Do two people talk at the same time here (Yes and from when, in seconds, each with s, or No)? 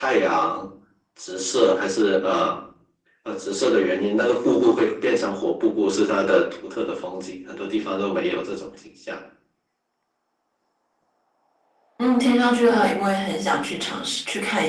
No